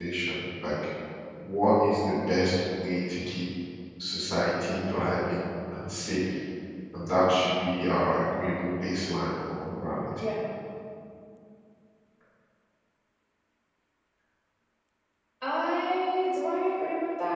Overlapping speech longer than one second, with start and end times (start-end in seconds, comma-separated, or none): none